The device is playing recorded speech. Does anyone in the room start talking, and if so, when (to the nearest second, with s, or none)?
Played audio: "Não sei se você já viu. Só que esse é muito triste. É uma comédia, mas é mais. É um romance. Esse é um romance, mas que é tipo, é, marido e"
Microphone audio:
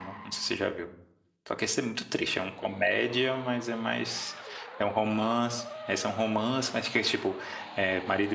none